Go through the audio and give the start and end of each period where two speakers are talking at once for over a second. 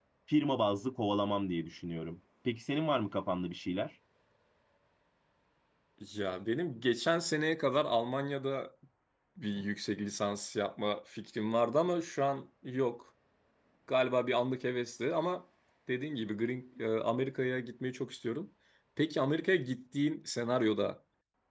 none

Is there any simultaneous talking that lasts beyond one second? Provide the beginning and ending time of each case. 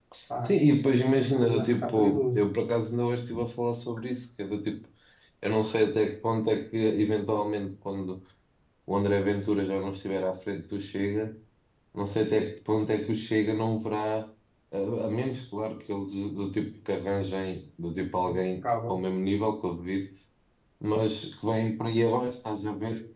1.1-2.4

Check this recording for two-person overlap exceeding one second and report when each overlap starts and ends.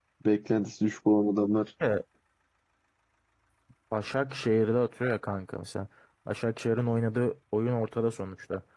none

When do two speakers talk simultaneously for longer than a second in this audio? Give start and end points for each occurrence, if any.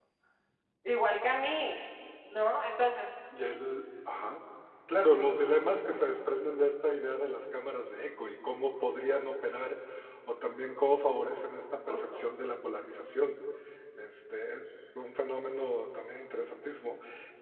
none

